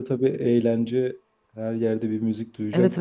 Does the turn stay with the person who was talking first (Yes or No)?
No